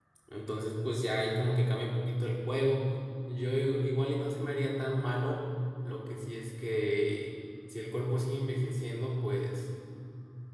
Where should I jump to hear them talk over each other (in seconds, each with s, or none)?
none